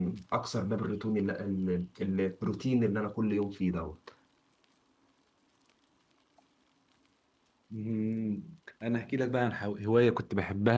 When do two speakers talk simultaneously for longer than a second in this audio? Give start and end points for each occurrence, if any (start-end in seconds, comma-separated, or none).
none